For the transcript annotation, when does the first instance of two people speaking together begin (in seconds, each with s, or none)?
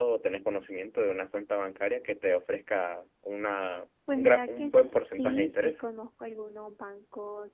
4.1 s